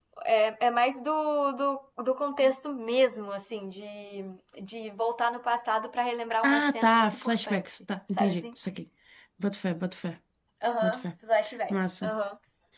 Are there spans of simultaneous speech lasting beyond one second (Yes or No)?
Yes